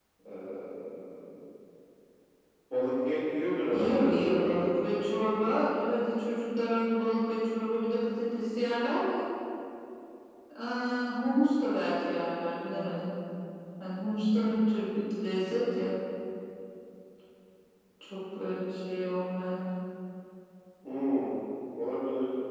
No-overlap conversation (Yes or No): No